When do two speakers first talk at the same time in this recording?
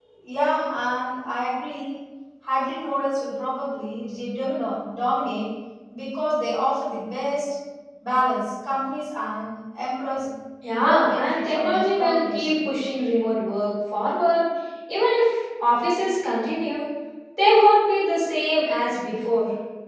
10.8 s

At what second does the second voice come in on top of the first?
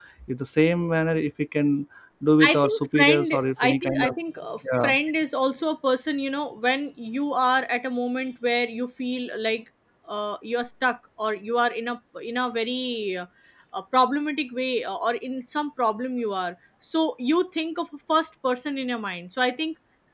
2.4 s

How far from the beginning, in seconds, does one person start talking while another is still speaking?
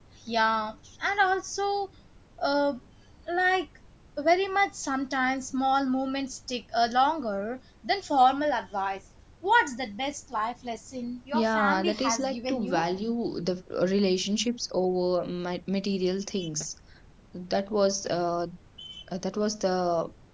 11.3 s

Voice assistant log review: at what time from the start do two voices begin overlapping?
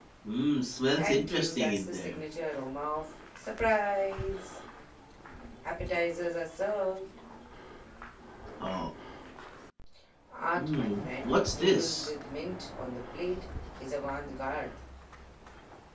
1.0 s

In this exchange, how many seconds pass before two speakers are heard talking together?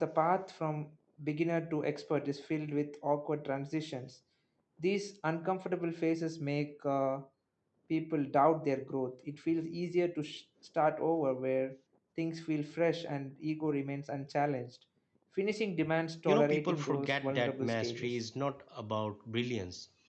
16.3 s

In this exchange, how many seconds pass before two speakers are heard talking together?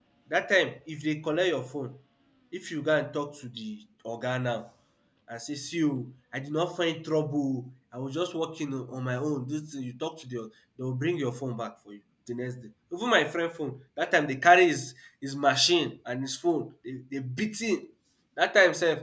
none

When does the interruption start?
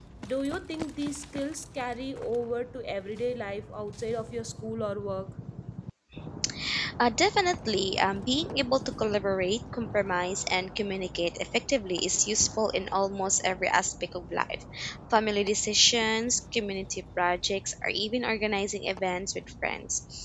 none

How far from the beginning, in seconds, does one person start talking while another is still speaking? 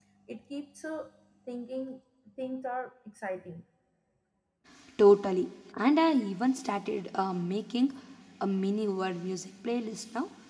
none

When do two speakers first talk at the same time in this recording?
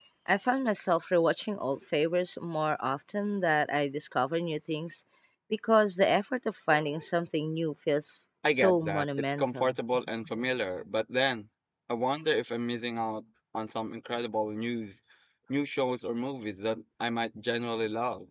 8.4 s

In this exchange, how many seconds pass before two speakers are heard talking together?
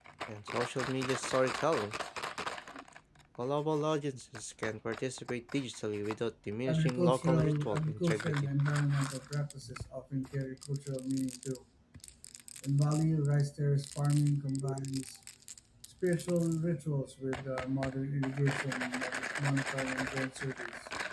6.7 s

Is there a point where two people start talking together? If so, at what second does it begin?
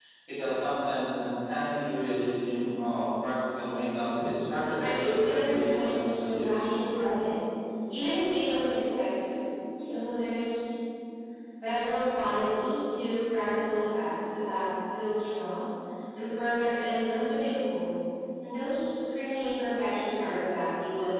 4.8 s

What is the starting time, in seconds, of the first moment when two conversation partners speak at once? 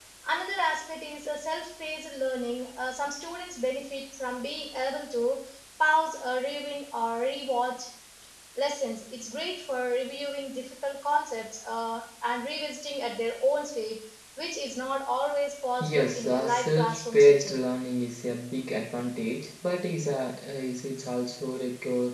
15.8 s

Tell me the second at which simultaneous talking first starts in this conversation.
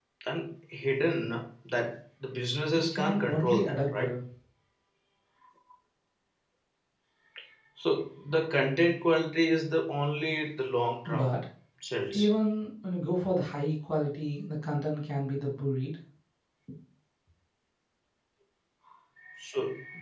2.7 s

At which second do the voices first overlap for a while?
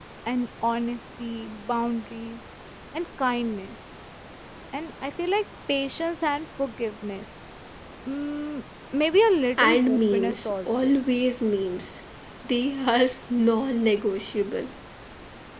9.6 s

